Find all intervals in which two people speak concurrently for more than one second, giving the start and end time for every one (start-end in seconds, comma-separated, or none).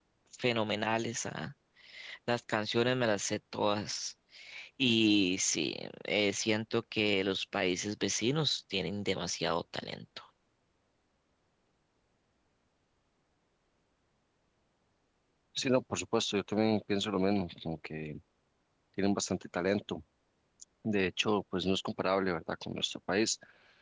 none